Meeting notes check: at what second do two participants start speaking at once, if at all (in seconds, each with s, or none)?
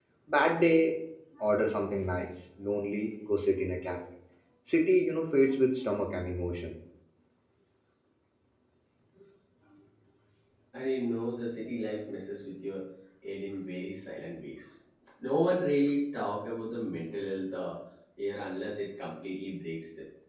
none